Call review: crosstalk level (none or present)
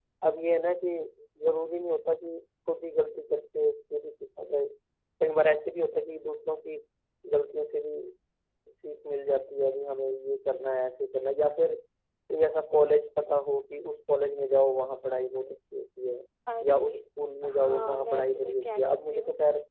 present